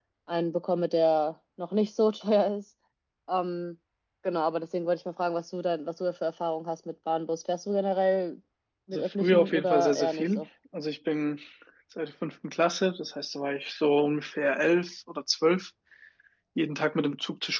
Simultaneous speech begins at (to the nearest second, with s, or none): 9 s